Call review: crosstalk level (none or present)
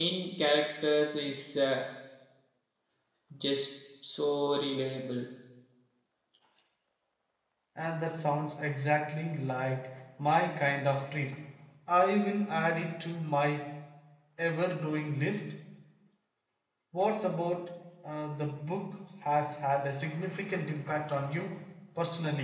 none